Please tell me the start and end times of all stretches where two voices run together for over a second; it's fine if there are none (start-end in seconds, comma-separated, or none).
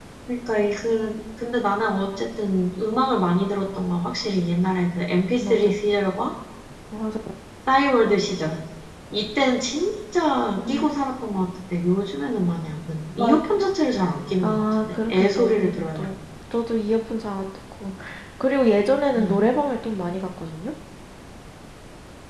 14.4-16.0